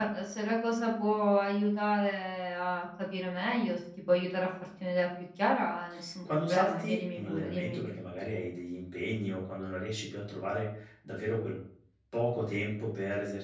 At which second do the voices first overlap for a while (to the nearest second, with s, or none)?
6 s